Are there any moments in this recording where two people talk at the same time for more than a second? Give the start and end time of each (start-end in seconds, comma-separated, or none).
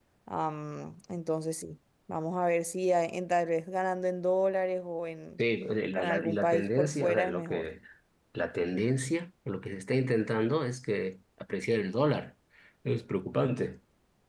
5.9-7.6